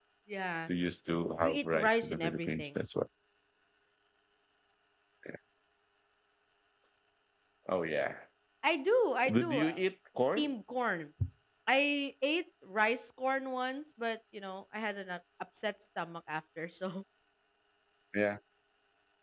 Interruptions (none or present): present